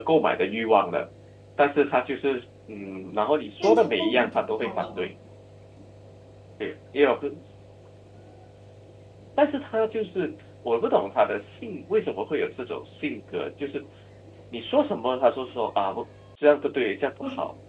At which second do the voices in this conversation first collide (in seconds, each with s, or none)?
3.6 s